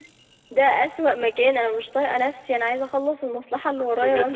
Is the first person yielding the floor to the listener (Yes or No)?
Yes